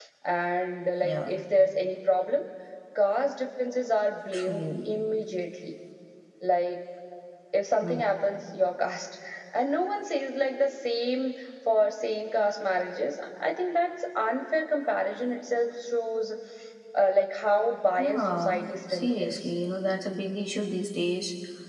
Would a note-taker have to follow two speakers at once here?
Yes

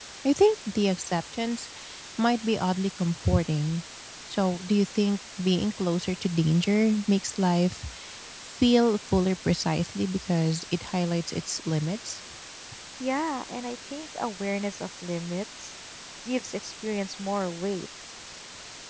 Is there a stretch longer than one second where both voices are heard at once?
No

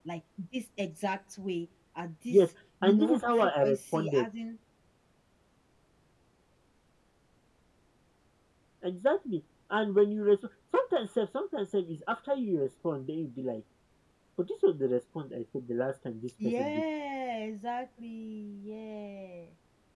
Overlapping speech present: Yes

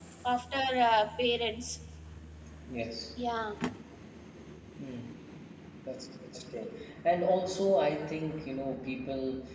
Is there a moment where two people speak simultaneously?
No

